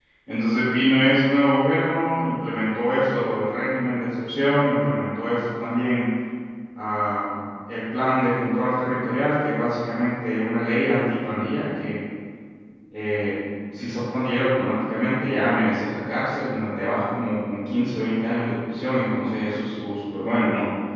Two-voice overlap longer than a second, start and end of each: none

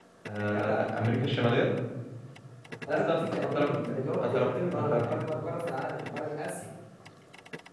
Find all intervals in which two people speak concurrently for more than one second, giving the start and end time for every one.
2.9-5.1

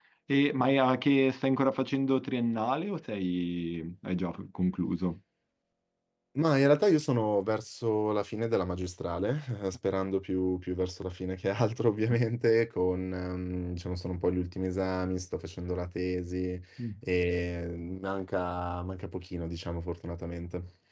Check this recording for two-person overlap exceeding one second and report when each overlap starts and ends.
none

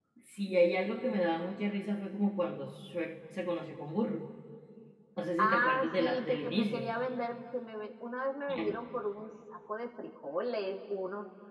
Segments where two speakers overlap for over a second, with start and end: 5.4-6.9

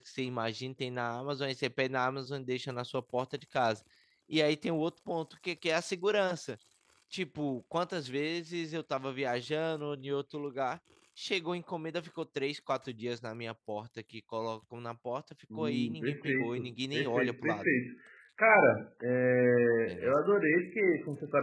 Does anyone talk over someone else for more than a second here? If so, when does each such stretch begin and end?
15.6-17.7

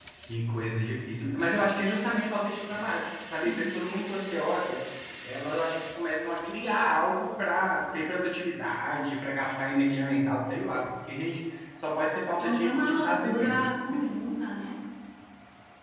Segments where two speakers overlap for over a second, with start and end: 12.4-13.6

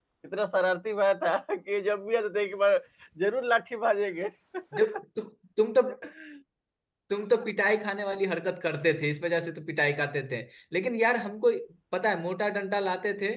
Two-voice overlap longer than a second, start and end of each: none

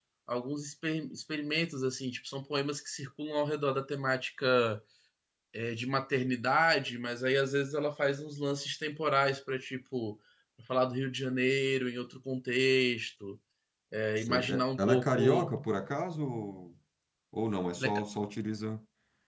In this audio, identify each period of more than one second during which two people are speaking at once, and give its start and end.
14.2-15.5

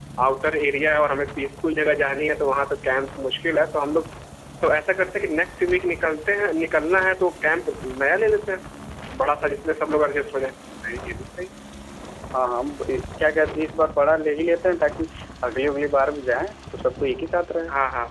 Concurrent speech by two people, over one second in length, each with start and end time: none

